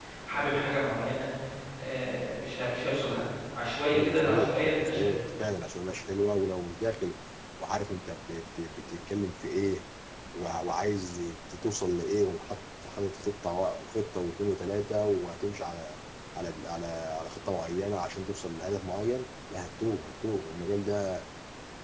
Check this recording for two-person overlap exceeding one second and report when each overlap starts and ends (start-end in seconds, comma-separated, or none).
3.9-5.2